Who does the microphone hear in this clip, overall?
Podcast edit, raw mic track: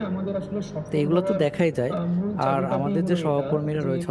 both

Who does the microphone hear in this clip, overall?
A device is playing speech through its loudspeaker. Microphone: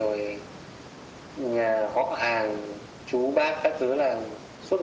echo only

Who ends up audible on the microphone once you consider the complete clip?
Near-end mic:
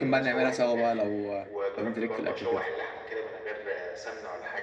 both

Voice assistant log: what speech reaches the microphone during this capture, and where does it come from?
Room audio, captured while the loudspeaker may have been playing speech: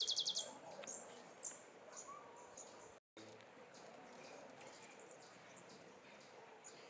neither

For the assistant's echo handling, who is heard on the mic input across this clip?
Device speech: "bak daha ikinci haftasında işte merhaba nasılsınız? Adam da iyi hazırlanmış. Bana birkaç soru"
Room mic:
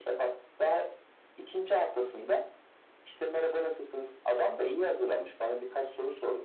echo only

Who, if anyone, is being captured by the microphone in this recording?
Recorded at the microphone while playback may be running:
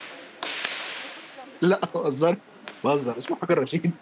user only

